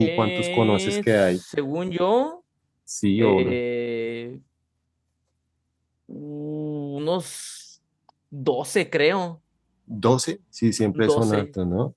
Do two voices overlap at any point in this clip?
Yes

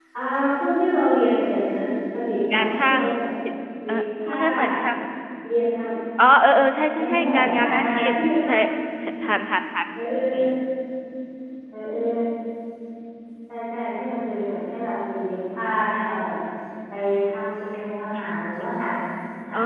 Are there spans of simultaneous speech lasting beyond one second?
Yes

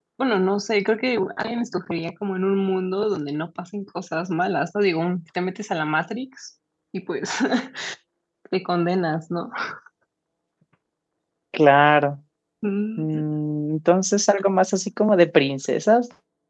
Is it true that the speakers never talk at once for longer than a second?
Yes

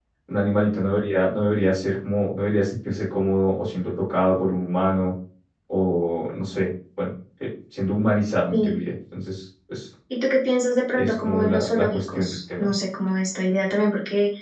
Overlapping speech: Yes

